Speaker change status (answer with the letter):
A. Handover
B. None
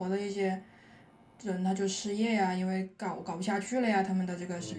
A